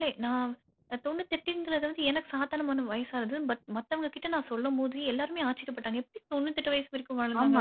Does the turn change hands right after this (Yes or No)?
Yes